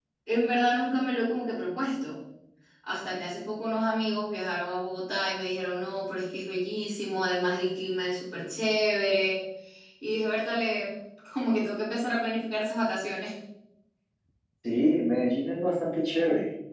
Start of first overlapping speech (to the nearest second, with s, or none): none